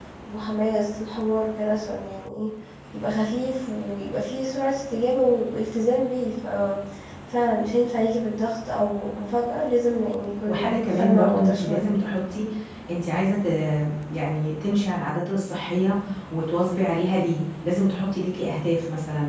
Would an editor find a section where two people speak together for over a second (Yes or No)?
Yes